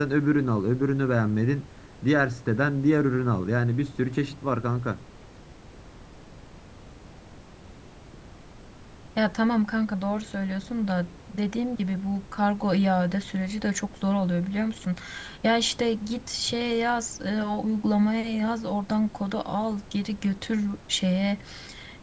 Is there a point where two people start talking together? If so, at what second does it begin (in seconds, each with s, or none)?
none